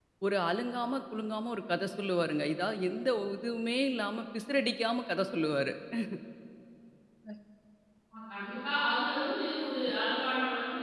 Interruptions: none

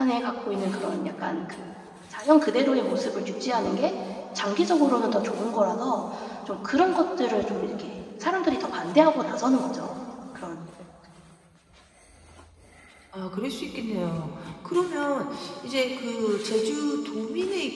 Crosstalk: none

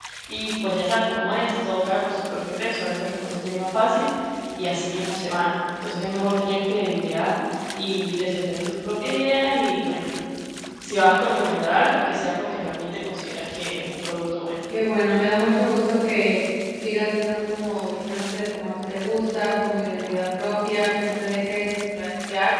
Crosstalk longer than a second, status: none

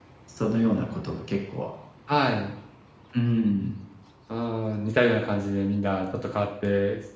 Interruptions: none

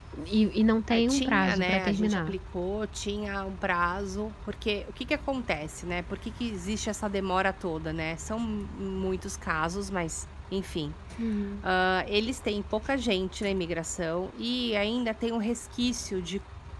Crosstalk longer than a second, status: present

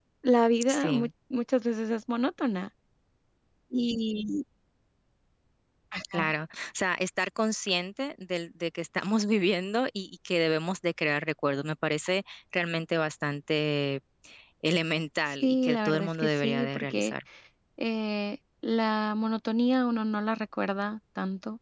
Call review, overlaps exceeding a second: present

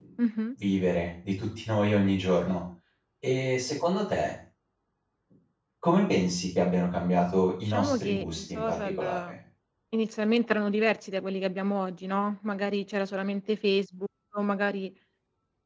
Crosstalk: present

